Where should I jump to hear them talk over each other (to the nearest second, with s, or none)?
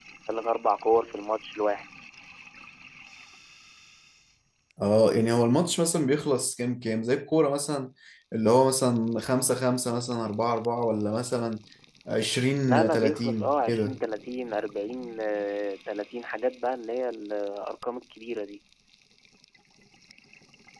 13 s